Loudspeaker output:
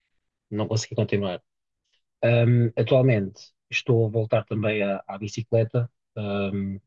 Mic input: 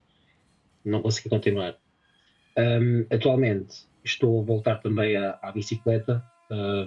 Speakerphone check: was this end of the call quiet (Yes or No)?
Yes